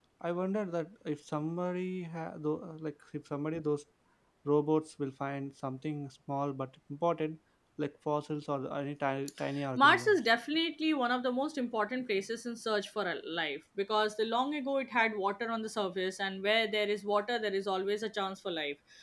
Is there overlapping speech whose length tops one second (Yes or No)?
No